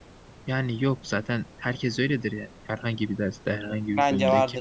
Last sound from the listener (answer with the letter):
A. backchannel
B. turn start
B